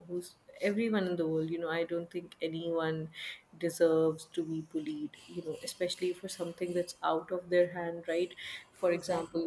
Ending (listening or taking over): listening